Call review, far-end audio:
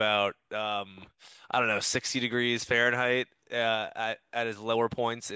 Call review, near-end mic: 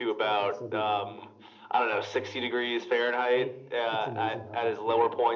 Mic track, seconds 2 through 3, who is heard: both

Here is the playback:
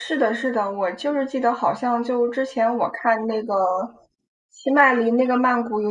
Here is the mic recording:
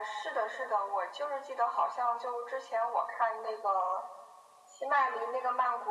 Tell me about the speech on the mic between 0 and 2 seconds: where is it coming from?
echo only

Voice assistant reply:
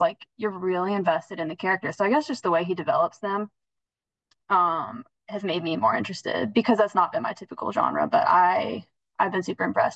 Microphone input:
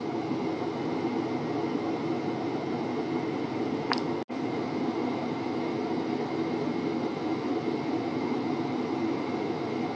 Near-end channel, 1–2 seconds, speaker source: neither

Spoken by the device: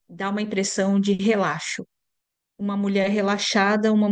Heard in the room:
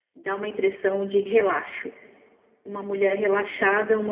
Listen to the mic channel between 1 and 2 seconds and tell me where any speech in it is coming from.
echo only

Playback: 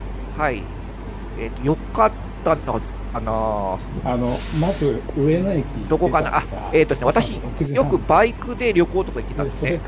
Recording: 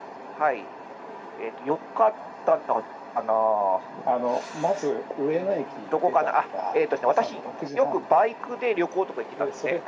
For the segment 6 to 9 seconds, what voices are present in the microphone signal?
echo only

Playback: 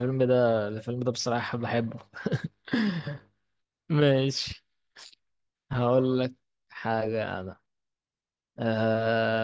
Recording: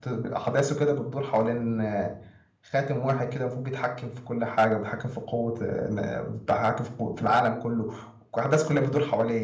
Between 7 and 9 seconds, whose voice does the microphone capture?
user only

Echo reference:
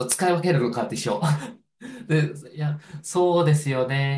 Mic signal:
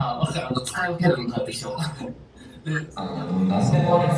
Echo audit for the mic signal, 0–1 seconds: echo only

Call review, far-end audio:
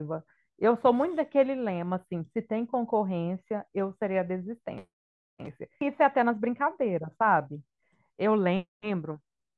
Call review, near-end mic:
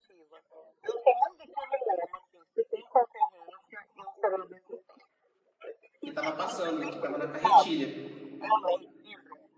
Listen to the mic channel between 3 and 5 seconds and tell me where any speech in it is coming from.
echo only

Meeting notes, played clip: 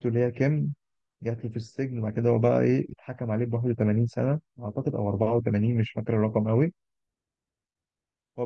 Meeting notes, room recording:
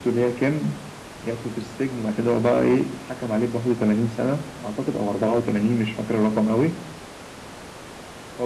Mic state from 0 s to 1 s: echo only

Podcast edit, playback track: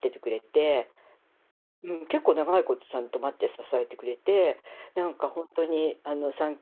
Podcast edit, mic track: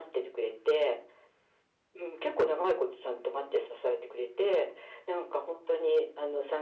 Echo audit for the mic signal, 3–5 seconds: echo only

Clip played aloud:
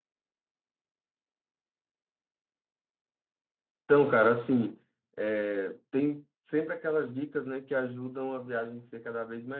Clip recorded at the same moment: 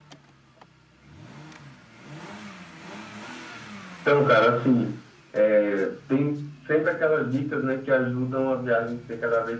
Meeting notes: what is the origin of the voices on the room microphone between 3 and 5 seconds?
echo only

